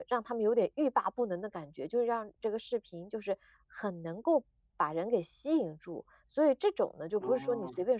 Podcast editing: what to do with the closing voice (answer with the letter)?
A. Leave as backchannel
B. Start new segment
A